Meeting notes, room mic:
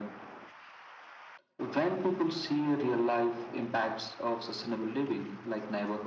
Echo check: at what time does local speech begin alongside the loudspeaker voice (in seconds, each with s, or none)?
none